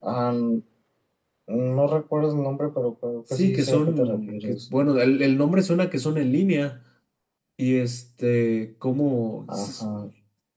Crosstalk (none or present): present